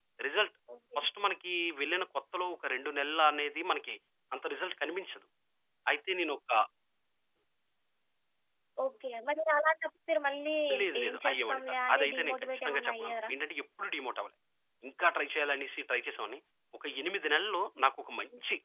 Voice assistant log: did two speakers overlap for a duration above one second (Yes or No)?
Yes